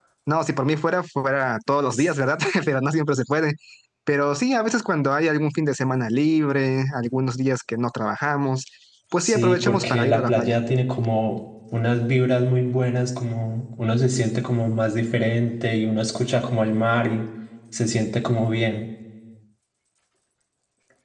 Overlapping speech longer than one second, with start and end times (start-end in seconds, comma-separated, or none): 9.2-10.6